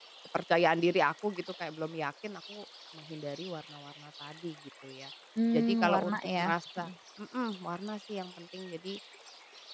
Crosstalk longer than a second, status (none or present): present